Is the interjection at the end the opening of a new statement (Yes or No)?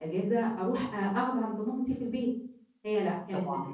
No